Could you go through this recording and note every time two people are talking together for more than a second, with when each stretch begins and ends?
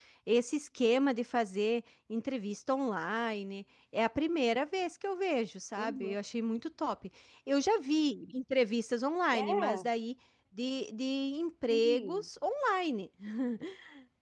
none

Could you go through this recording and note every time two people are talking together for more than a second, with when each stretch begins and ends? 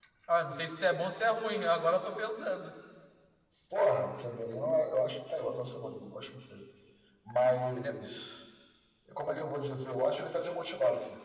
none

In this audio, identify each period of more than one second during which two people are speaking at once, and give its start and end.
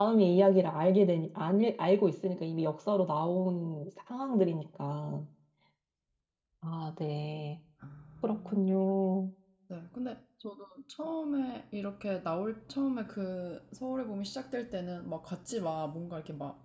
none

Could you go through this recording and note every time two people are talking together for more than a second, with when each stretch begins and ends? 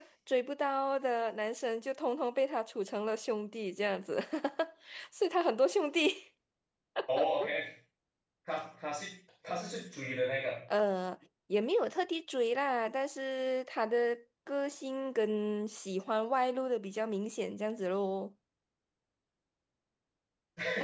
none

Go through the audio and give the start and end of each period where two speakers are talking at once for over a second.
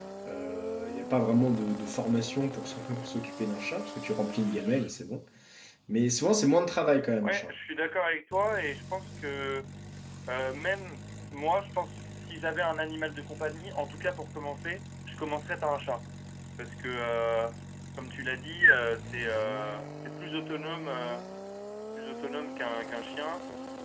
none

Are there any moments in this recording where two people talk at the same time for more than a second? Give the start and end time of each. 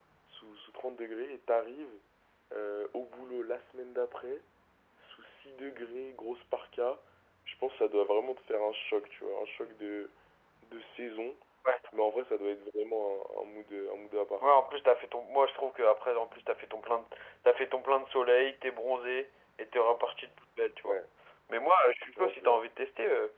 none

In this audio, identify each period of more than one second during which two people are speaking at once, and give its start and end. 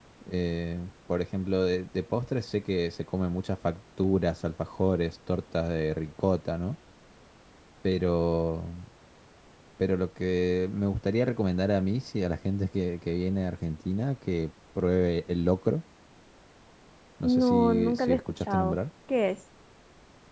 17.2-18.8

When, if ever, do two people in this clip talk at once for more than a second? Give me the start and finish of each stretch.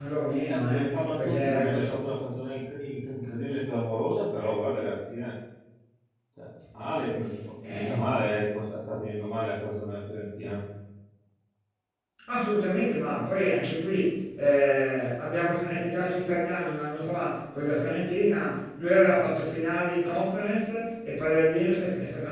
0.6-2.2

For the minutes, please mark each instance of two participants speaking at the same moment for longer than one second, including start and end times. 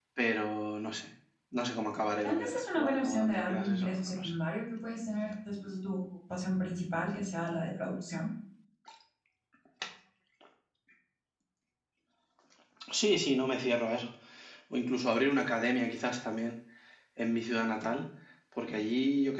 2.2-4.3

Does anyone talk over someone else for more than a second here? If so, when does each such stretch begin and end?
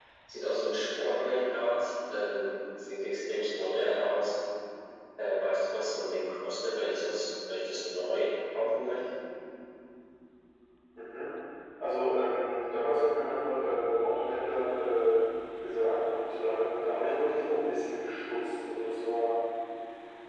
none

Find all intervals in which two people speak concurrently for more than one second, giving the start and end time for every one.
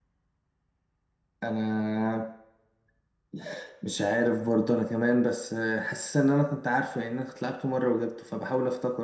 none

